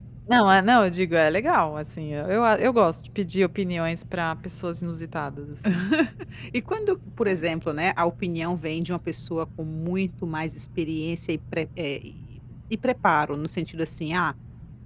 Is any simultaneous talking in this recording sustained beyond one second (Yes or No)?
No